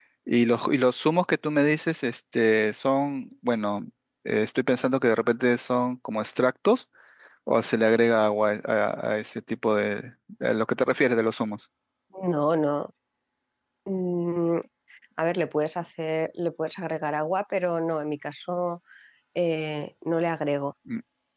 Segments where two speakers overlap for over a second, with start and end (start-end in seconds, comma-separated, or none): none